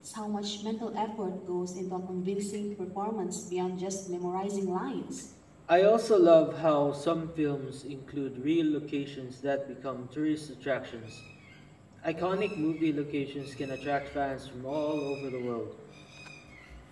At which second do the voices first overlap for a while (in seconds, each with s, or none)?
none